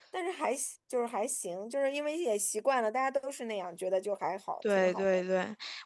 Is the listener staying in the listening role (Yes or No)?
No